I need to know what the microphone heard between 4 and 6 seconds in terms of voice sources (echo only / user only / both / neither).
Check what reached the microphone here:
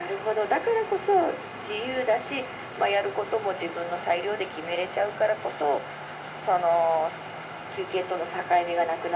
echo only